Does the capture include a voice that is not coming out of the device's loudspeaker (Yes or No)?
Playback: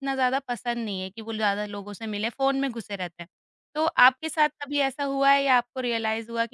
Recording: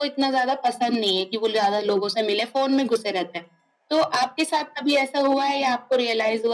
No